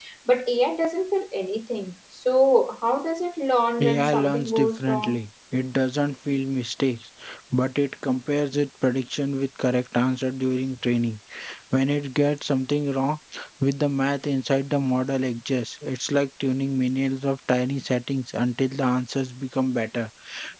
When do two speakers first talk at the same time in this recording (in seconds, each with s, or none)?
3.8 s